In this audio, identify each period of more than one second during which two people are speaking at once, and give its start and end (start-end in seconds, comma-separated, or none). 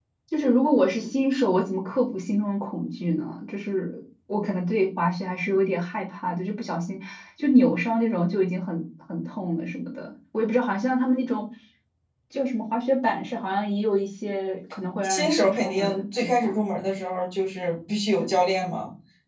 15.1-16.5